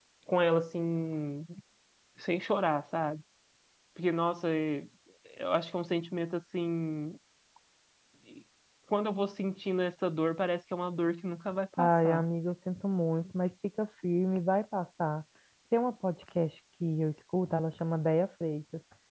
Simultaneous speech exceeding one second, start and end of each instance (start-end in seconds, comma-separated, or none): none